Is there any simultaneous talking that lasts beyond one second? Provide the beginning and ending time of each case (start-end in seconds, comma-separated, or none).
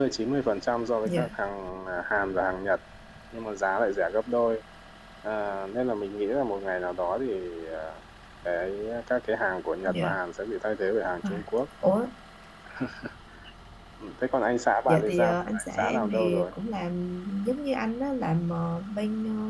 14.9-16.5